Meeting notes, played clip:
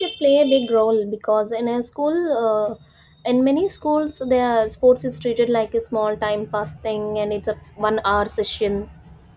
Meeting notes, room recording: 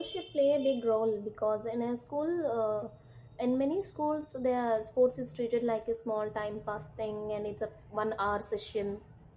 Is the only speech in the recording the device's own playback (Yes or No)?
Yes